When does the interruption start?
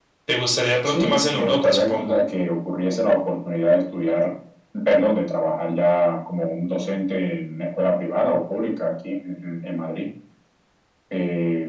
0.8 s

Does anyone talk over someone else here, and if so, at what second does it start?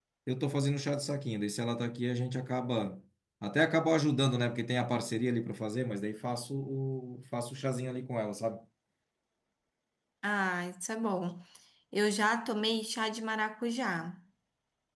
none

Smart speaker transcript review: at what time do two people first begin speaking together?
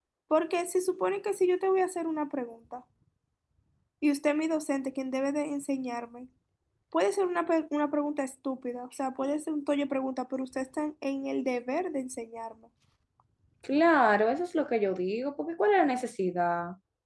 none

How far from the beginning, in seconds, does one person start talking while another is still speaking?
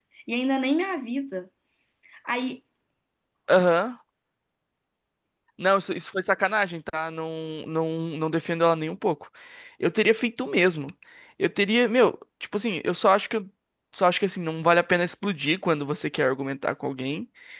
none

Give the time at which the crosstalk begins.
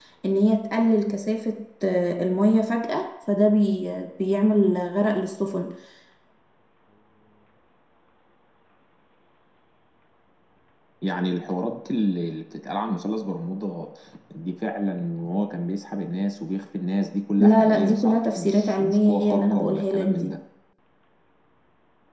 17.4 s

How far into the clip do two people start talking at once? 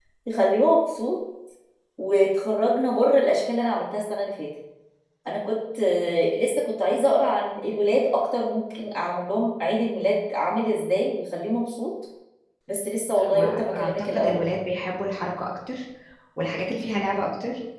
13.2 s

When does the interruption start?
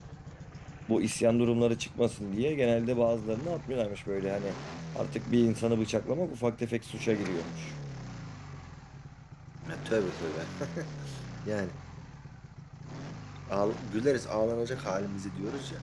none

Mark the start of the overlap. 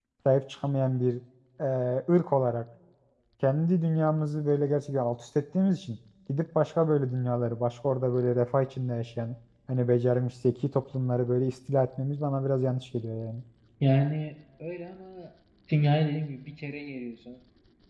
none

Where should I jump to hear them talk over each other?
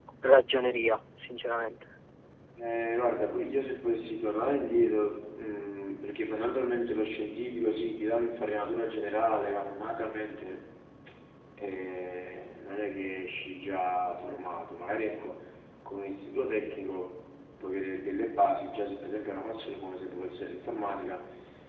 none

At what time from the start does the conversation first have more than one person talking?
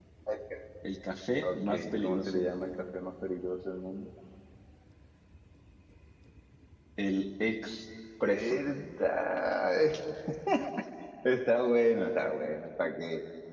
1.5 s

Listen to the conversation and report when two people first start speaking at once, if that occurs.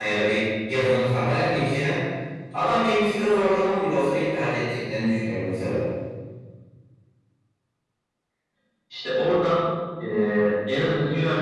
none

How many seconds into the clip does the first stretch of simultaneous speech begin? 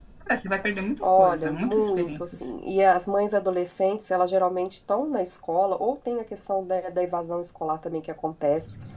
1.0 s

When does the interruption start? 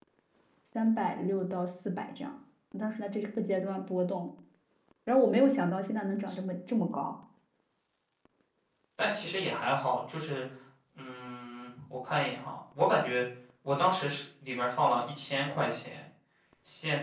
none

